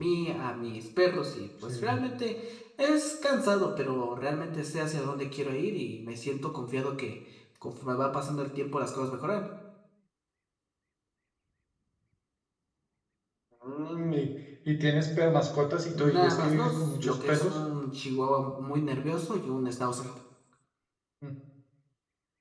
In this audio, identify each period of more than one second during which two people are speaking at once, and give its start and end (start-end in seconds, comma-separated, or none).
15.9-17.6